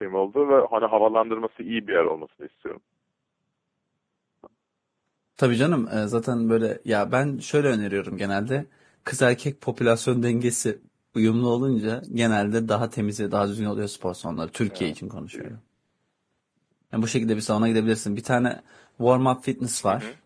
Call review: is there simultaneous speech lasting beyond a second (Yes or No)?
No